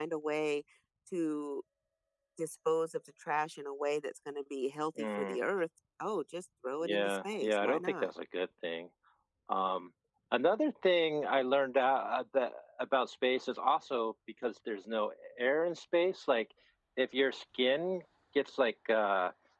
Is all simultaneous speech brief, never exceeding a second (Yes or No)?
No